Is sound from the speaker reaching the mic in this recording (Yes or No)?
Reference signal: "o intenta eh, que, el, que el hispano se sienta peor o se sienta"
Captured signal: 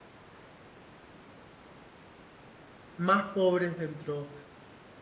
No